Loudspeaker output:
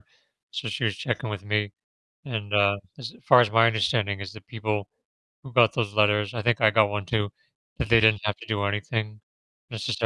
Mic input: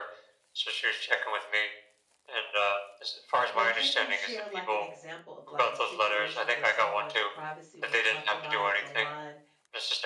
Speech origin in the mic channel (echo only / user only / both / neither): both